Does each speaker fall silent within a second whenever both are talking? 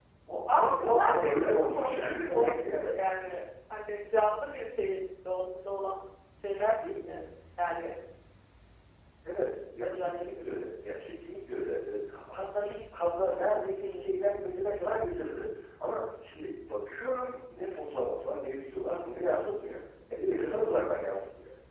No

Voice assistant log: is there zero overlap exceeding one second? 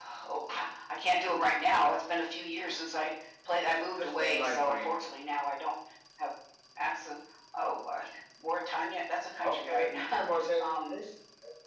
No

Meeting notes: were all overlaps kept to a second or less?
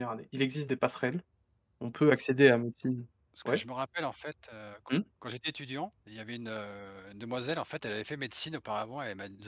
Yes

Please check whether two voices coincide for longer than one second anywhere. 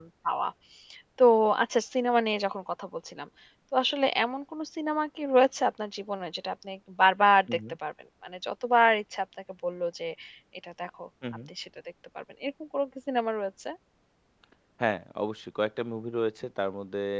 No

